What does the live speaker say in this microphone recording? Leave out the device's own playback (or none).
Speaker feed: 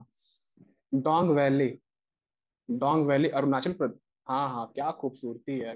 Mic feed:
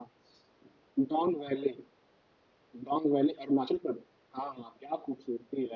none